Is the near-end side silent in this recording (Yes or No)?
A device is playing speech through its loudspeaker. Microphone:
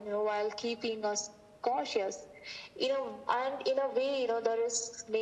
Yes